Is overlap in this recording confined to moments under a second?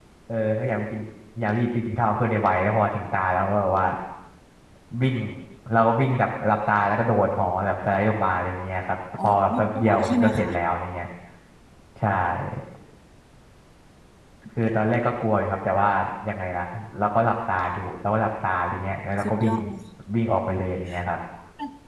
No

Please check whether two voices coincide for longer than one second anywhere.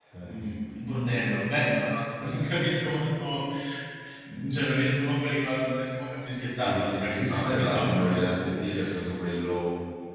Yes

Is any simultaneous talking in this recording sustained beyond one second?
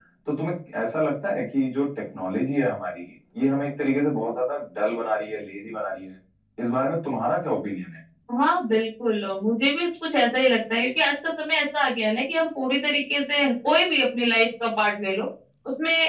No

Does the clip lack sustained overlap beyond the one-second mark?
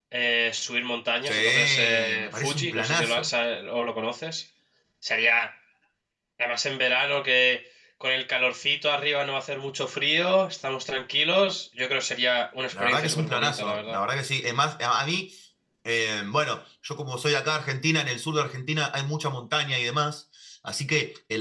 No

